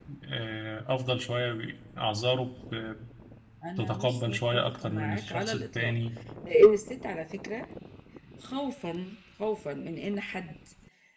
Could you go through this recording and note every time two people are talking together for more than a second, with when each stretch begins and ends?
3.8-5.9

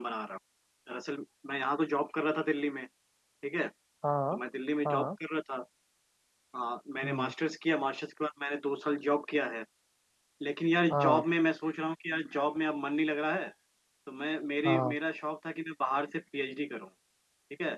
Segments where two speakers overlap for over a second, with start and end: none

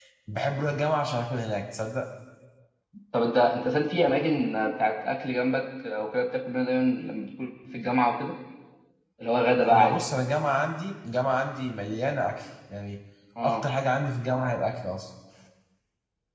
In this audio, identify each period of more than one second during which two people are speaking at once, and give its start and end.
none

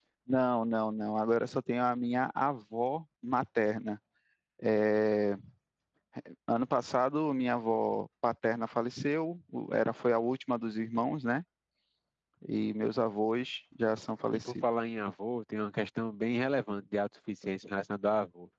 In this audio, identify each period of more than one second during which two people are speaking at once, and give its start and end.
none

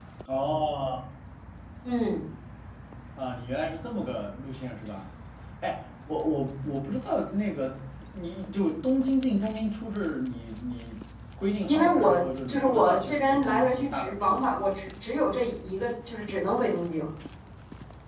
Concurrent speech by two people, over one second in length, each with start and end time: 11.7-14.4

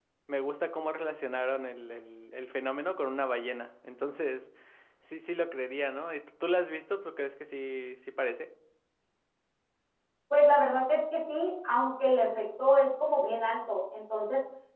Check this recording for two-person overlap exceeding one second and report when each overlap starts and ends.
none

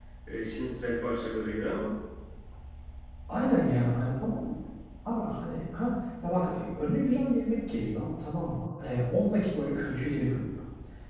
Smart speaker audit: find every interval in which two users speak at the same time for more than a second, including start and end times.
none

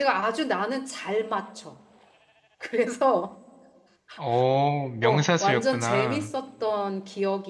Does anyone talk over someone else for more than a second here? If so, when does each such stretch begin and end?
5.0-6.3

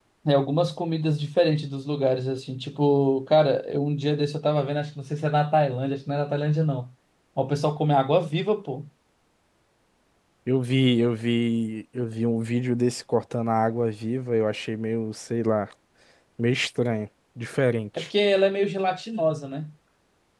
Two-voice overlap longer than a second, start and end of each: none

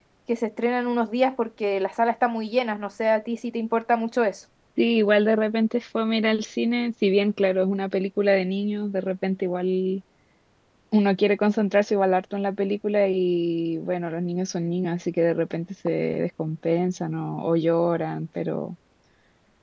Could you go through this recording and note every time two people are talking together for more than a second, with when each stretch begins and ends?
none

